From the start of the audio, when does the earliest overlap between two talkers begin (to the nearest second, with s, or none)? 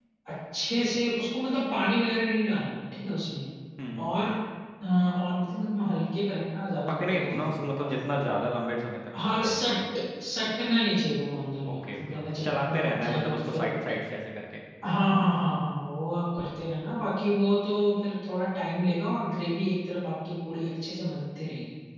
7 s